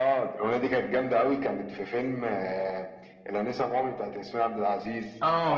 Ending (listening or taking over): taking over